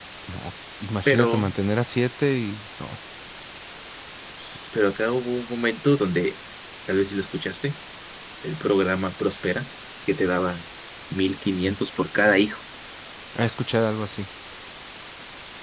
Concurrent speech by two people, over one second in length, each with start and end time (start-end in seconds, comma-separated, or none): none